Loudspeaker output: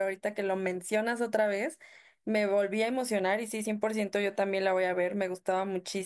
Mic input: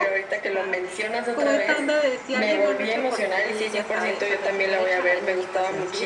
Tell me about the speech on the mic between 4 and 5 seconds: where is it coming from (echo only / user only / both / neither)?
both